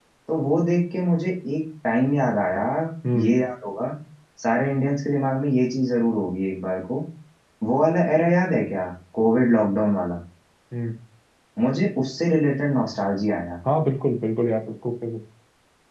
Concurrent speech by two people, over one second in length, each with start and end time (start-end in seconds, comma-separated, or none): none